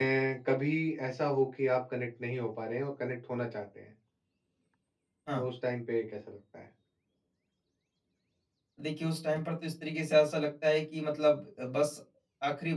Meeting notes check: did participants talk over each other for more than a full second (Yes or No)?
No